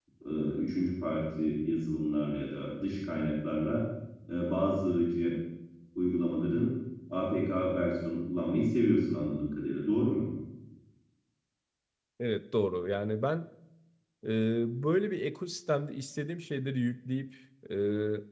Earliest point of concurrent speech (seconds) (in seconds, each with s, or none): none